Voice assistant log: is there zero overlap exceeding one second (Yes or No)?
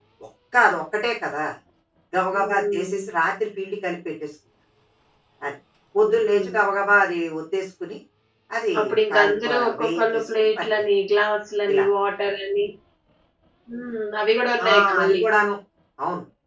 No